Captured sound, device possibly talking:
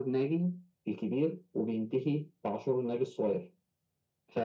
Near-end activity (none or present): none